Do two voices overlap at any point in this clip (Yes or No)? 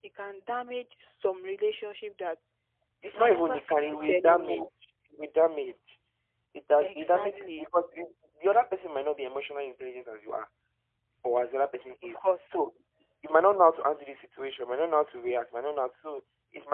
Yes